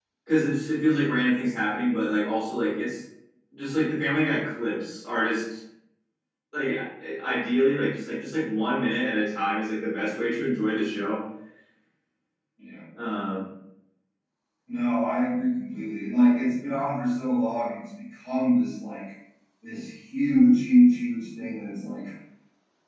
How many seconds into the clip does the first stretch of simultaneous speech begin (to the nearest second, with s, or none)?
none